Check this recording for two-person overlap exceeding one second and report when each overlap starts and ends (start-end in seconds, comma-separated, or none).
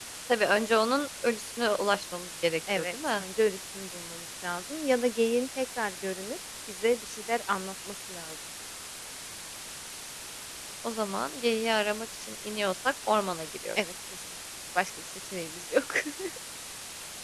none